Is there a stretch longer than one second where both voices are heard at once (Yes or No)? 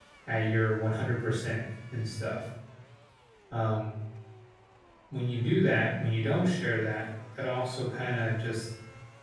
No